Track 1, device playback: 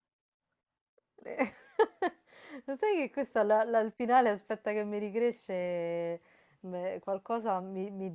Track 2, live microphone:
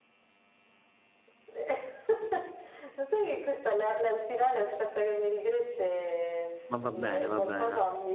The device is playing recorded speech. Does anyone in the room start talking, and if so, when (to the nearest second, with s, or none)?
7 s